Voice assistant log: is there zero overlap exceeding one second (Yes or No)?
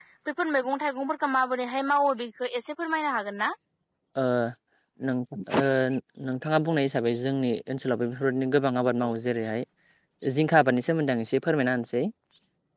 Yes